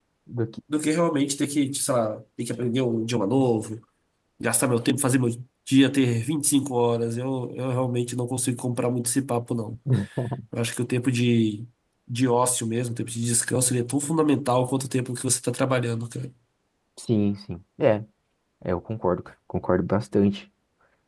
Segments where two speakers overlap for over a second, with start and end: none

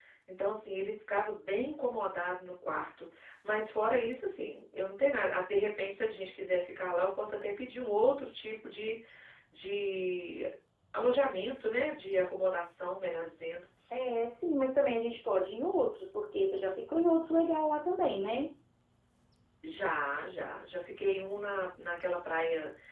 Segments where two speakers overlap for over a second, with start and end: none

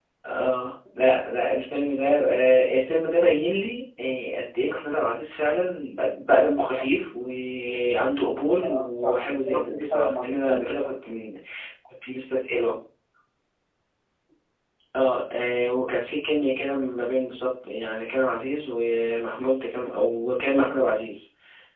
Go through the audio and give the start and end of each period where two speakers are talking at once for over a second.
8.4-10.8

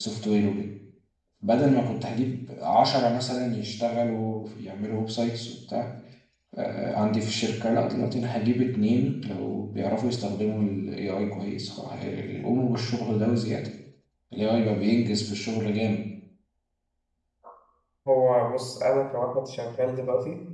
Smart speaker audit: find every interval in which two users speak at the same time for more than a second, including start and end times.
none

